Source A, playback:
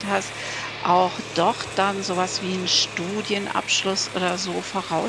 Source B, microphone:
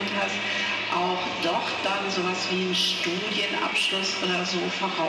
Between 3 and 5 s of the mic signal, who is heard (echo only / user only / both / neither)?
echo only